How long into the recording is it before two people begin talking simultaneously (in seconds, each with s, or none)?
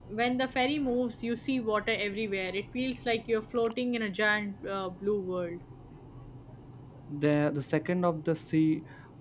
none